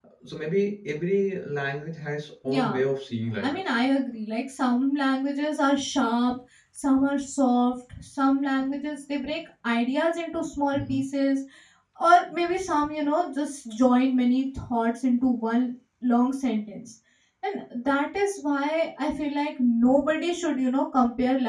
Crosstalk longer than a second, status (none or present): none